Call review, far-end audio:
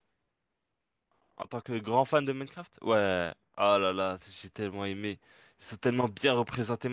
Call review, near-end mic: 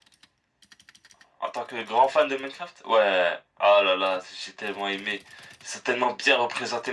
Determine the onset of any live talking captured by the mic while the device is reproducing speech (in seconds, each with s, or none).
none